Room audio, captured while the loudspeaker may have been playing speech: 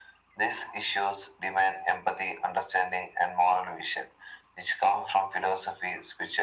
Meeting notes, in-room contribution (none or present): none